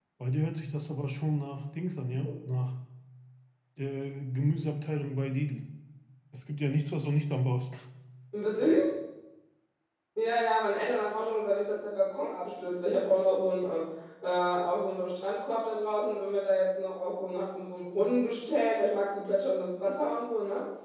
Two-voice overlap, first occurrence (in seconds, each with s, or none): none